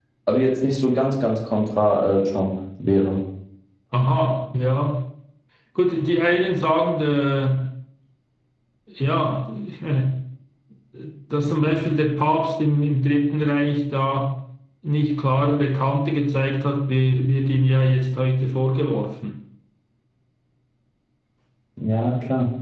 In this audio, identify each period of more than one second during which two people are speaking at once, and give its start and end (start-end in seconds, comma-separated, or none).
none